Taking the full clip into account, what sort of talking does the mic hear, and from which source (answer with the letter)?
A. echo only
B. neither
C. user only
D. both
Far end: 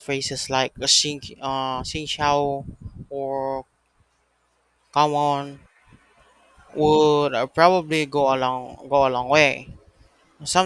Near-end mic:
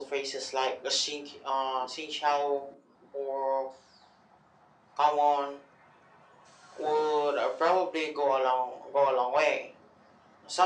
A